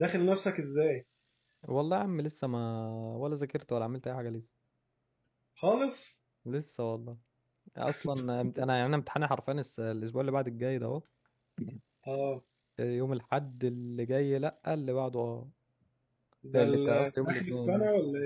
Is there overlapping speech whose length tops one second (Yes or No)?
Yes